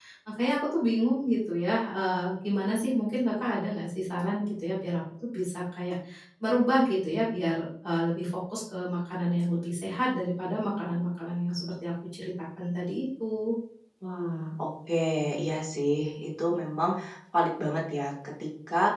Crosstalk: none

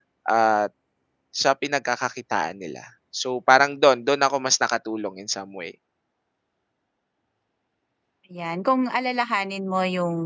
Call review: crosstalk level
none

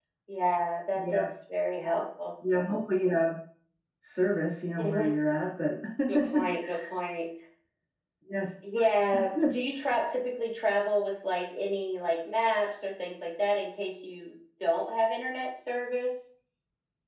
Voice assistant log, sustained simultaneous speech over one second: none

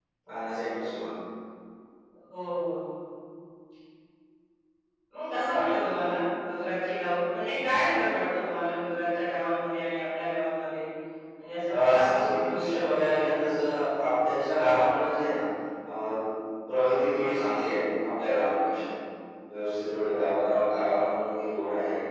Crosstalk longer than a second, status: present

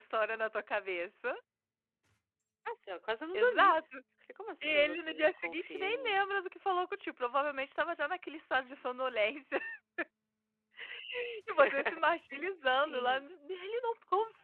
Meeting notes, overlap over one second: present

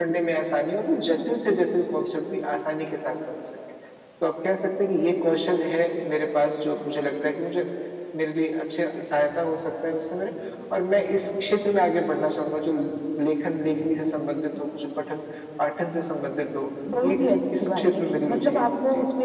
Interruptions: present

